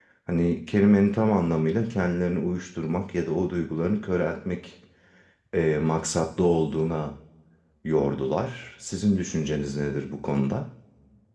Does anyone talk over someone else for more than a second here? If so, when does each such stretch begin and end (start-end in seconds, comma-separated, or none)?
none